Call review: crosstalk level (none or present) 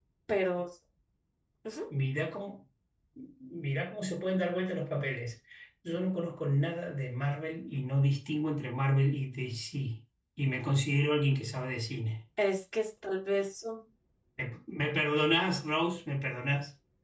none